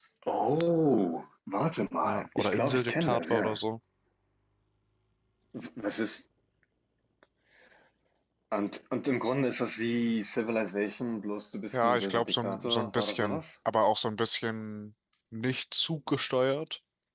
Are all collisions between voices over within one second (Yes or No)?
No